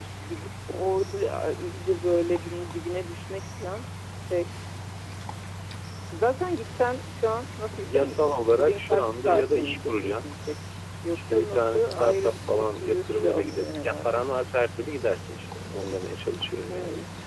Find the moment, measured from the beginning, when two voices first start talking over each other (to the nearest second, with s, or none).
8 s